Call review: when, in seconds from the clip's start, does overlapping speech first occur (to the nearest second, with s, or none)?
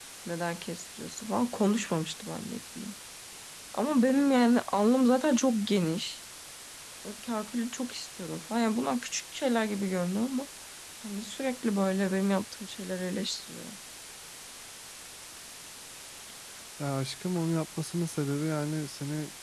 none